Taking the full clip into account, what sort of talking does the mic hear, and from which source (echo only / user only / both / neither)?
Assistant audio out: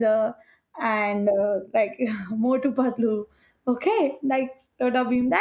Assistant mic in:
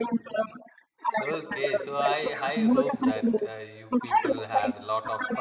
both